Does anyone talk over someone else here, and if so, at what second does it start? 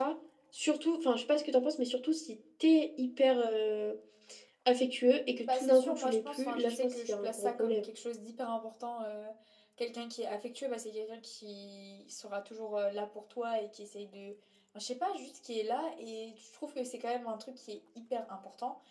5.4 s

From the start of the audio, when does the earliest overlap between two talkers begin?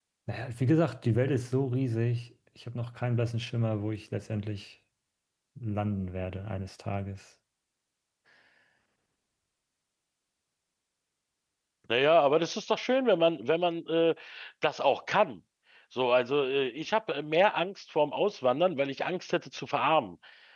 none

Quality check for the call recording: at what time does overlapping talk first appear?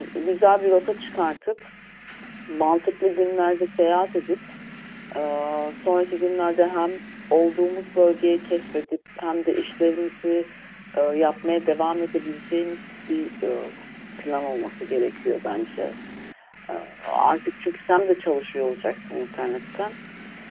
none

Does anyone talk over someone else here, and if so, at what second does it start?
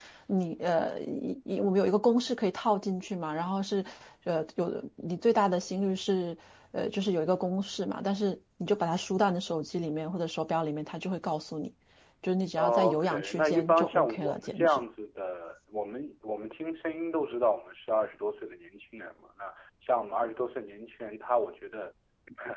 12.6 s

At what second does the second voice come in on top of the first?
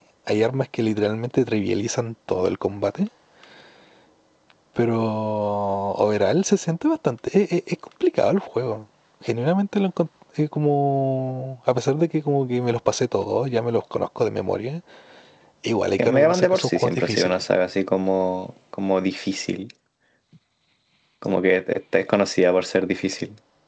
16.0 s

